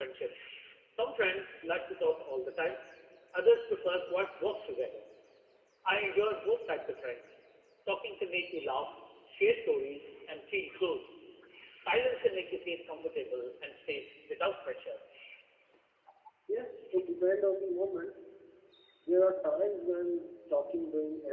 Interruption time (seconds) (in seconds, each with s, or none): none